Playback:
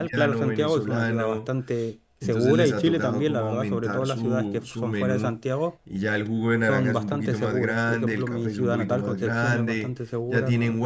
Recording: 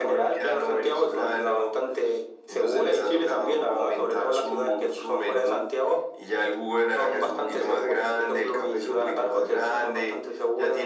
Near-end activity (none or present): none